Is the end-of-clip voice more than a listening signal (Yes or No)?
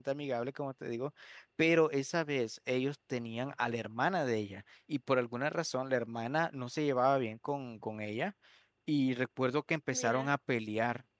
No